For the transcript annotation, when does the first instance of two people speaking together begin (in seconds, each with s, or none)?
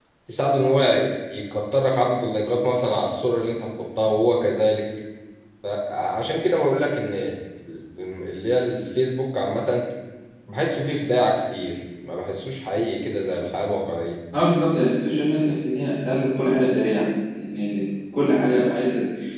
none